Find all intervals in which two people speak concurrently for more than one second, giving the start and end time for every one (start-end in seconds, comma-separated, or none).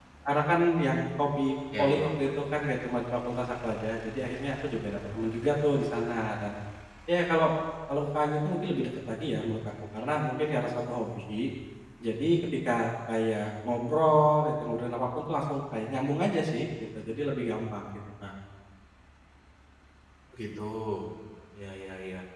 none